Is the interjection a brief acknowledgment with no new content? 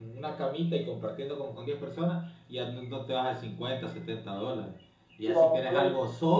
Yes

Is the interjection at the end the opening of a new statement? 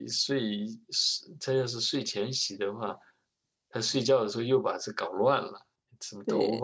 Yes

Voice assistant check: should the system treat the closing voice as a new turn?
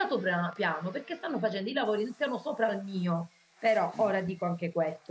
No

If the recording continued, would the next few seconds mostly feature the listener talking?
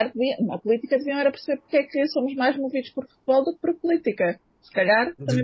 Yes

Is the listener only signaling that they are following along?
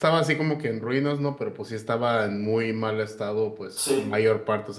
Yes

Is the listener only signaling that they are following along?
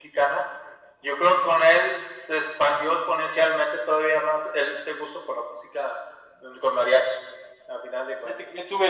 No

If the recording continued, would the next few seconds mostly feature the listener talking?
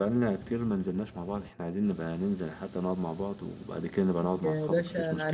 Yes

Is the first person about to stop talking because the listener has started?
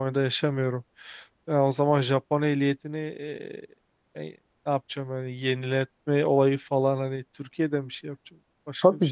Yes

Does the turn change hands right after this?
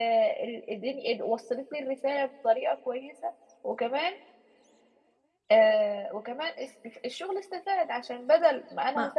No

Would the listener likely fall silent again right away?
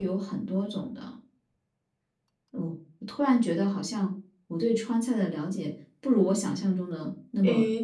No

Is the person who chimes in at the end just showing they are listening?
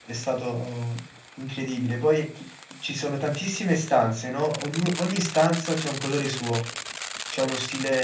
Yes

